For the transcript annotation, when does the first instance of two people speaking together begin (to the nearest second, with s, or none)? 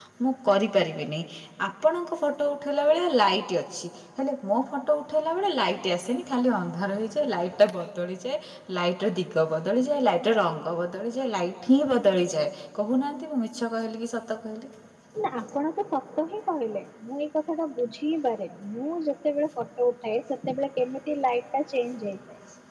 none